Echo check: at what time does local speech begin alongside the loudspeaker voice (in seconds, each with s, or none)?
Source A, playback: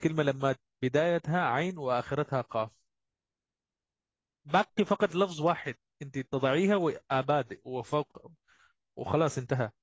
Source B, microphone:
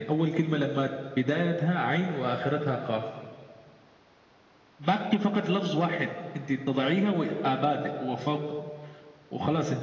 none